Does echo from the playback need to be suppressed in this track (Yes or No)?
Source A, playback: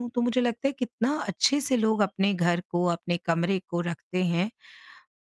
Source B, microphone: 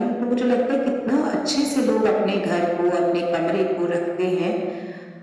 Yes